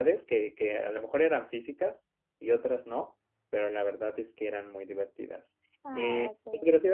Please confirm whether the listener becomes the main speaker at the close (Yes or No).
No